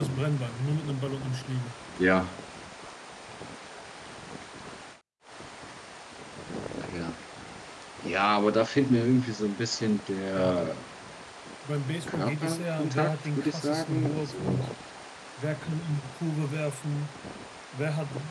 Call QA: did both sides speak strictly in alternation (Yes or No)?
No